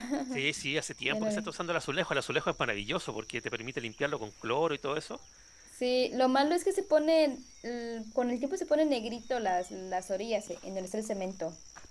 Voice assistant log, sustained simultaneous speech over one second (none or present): none